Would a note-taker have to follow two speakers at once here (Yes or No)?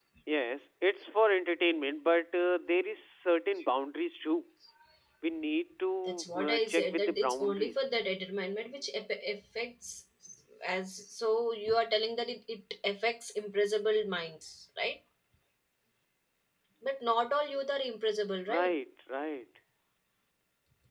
Yes